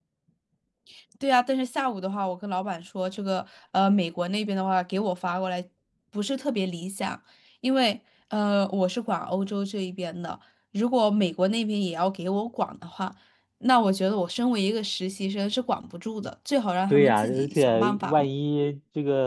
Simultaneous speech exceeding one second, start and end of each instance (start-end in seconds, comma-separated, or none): 16.9-18.3